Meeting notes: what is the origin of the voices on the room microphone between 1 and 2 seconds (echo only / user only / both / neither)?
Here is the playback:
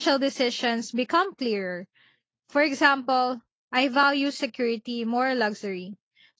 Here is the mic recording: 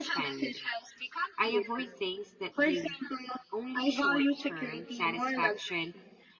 both